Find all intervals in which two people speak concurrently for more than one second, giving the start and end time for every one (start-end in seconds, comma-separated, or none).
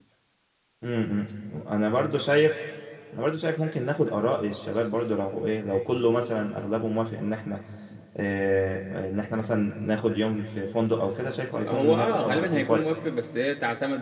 11.7-13.0